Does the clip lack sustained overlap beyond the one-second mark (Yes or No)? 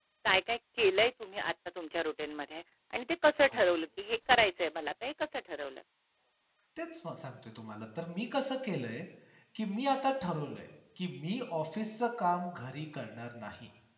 Yes